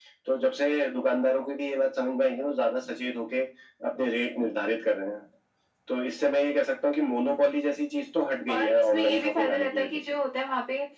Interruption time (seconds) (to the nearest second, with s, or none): 8 s